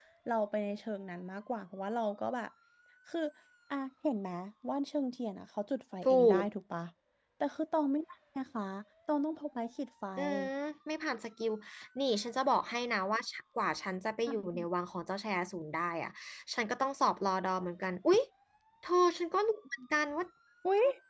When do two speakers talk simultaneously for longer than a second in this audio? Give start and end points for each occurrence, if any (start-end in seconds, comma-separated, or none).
none